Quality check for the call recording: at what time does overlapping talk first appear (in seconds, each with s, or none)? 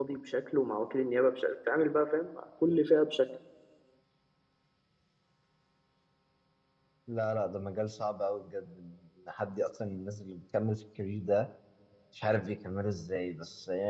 none